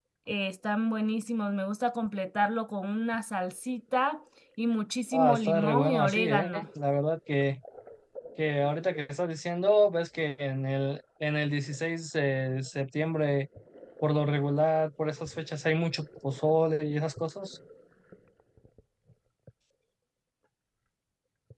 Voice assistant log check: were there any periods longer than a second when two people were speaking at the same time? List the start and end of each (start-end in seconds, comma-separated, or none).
5.1-6.6